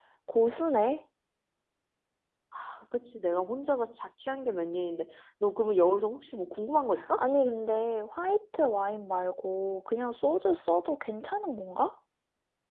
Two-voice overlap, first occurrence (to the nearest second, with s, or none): none